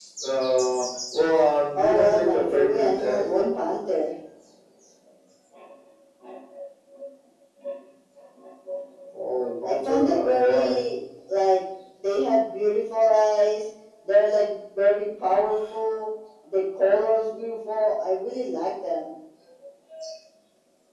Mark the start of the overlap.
1.8 s

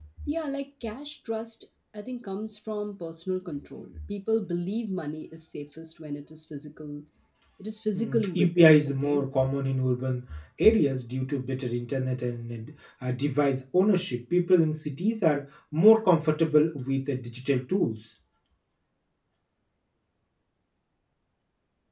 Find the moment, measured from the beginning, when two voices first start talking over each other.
8.0 s

